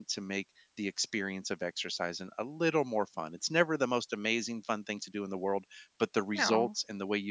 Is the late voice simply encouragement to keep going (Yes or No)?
Yes